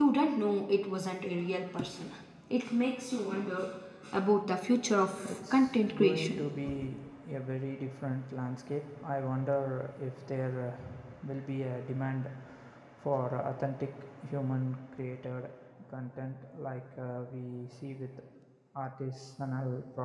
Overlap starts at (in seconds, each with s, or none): 5.3 s